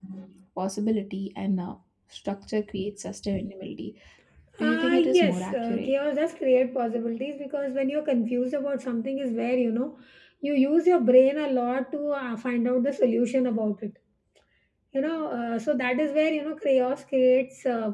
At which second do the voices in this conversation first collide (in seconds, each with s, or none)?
4.6 s